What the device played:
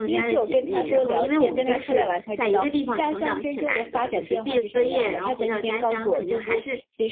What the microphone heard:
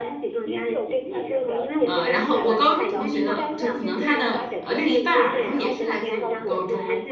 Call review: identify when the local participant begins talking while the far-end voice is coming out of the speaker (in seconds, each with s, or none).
1.8 s